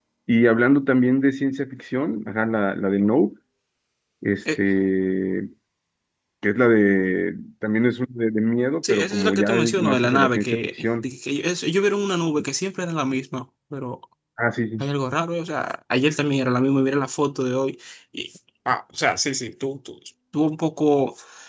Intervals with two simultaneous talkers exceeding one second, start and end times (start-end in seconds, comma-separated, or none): 8.9-11.1